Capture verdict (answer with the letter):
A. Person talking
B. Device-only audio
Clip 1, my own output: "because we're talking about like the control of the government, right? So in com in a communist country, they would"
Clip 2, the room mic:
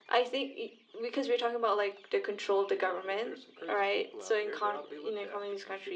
A